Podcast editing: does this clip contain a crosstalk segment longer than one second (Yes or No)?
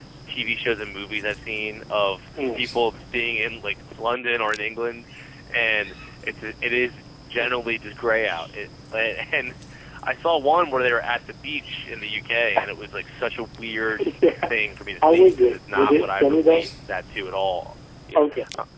Yes